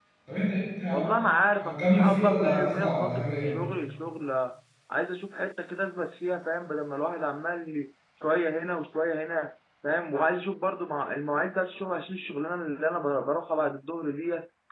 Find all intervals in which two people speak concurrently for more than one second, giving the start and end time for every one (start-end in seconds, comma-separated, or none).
1.6-3.6